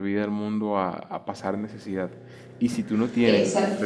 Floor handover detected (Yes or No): No